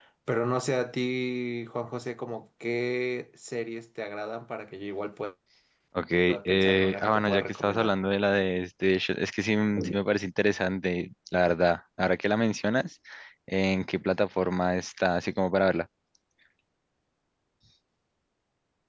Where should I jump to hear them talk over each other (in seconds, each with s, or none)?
6.5 s